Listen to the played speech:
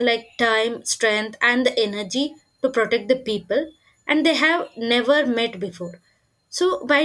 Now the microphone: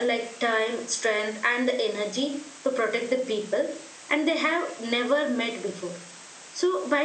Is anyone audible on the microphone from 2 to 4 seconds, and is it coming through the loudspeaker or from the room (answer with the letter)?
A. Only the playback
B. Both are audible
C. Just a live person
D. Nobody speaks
A